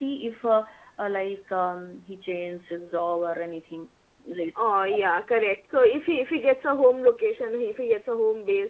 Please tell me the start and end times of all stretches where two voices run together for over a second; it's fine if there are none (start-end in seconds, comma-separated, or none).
none